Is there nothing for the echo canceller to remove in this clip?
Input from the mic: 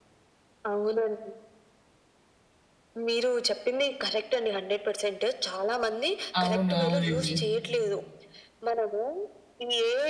No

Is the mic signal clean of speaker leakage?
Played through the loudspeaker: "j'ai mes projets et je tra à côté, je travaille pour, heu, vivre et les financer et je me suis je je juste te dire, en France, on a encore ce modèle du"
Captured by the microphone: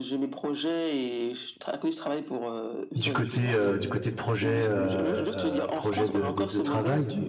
No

